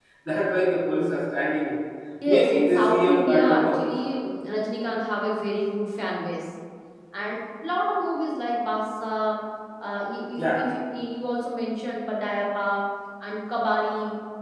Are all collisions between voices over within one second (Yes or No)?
No